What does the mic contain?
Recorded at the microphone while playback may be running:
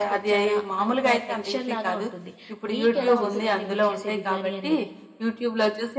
both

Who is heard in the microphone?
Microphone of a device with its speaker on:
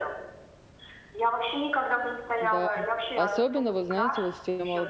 both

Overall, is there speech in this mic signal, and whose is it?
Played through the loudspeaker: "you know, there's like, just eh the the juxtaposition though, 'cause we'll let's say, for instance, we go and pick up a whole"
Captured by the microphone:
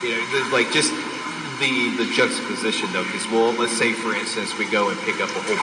echo only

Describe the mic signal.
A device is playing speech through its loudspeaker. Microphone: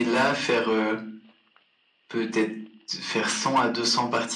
echo only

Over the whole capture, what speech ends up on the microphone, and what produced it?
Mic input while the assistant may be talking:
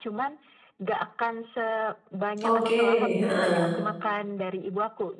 both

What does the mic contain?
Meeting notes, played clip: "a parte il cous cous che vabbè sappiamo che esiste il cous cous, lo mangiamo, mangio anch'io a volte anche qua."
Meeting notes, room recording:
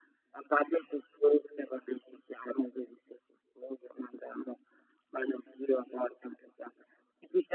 echo only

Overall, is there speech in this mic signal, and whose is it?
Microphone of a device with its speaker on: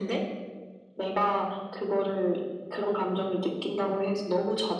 echo only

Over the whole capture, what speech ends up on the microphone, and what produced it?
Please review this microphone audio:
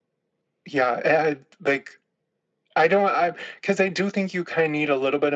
echo only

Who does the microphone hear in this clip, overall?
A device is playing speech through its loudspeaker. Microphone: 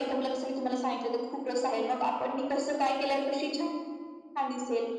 echo only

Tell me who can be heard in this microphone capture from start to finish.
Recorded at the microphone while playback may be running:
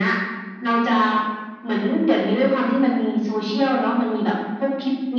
echo only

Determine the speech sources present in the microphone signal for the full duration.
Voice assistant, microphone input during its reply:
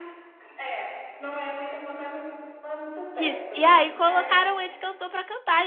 both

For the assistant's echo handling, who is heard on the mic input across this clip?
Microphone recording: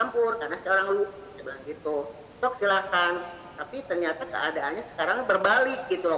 echo only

